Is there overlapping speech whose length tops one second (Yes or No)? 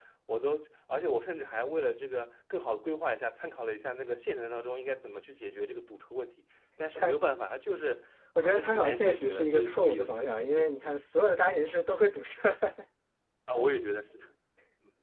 Yes